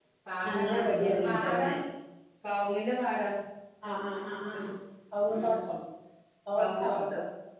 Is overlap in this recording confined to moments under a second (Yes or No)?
No